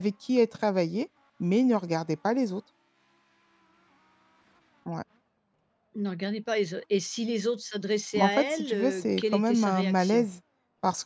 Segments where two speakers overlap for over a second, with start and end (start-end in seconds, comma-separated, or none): 8.1-10.2